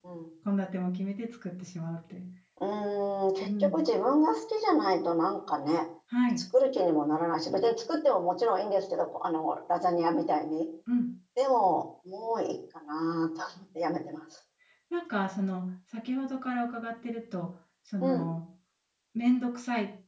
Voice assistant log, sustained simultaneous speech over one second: none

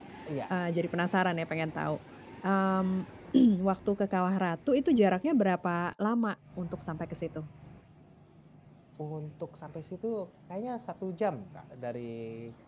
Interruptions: none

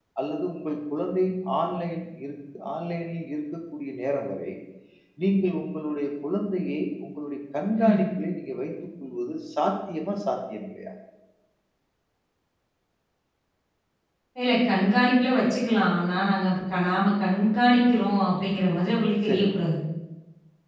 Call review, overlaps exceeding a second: none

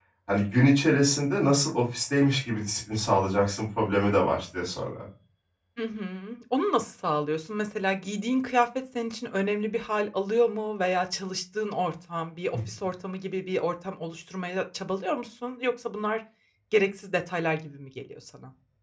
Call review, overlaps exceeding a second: none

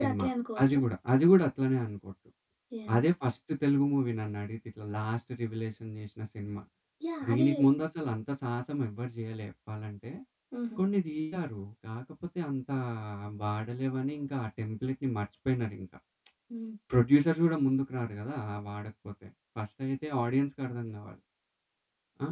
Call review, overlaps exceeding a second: none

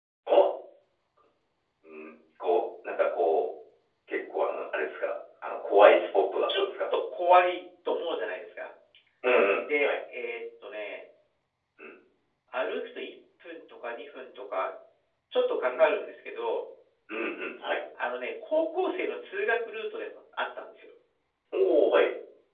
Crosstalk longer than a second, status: none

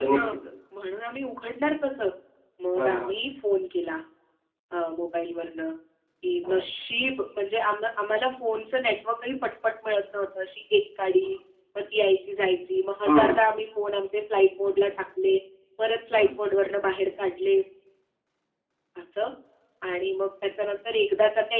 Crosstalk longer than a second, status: none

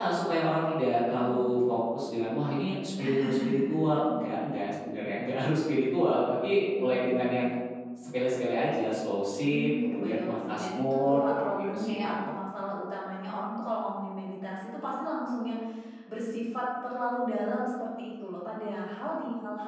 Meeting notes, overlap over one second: present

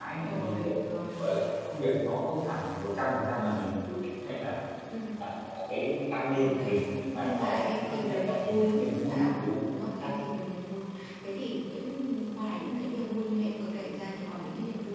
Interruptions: present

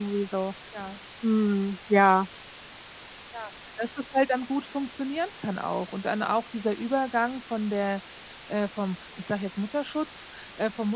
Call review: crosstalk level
none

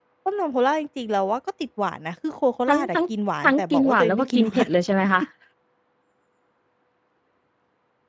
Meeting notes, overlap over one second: present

